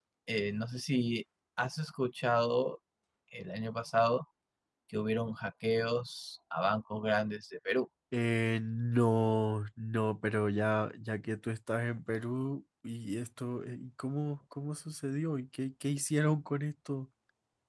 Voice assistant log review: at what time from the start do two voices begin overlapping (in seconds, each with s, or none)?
none